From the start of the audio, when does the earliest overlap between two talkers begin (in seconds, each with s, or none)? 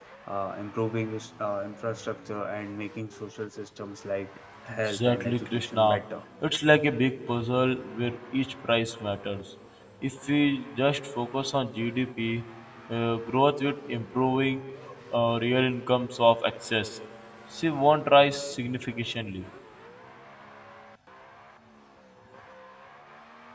4.7 s